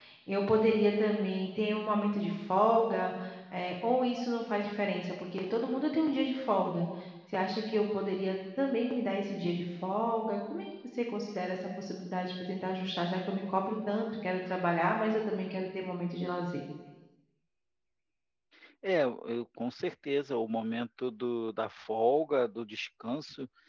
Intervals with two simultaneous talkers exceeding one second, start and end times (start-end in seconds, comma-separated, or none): none